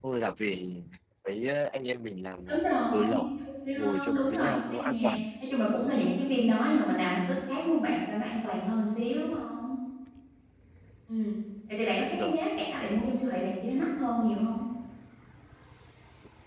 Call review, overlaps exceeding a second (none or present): present